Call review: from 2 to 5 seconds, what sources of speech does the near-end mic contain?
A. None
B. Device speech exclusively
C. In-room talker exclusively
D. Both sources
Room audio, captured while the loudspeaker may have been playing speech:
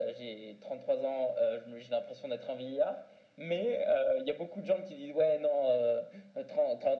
B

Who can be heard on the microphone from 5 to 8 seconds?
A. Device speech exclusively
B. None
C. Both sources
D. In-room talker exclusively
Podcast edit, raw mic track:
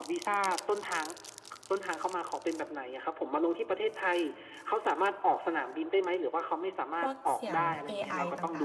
C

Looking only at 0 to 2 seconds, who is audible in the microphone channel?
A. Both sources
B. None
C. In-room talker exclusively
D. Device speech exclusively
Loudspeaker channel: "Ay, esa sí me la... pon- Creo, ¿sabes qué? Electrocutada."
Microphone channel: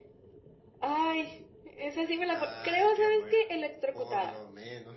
D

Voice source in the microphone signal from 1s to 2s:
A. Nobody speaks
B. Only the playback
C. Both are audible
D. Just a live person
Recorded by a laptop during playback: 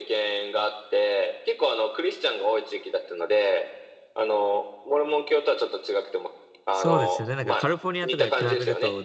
B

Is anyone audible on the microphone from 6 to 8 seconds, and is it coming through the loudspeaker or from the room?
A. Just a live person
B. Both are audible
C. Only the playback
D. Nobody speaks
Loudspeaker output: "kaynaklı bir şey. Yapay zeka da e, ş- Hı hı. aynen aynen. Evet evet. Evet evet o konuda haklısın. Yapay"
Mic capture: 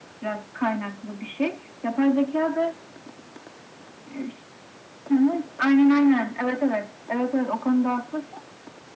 C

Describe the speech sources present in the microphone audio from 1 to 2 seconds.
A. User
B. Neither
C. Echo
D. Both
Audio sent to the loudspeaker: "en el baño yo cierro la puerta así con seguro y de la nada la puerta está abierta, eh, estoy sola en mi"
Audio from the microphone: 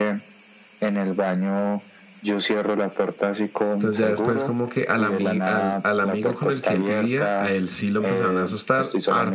C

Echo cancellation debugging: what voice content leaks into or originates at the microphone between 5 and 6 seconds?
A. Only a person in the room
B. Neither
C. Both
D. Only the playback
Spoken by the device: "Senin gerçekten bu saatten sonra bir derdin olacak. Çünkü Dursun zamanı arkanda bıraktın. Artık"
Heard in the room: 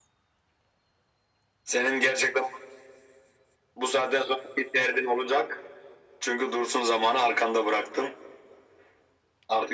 D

